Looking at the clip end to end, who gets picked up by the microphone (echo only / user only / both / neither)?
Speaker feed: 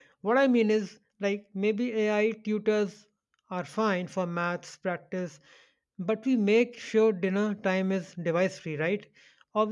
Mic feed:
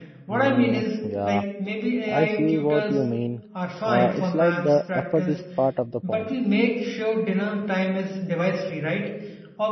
both